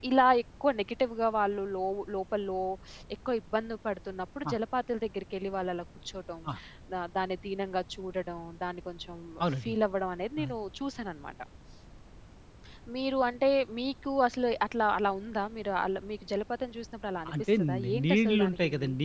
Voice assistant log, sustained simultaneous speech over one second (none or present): present